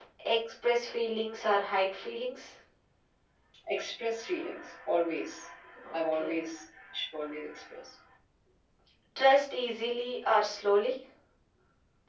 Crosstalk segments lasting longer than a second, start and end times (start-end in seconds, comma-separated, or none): none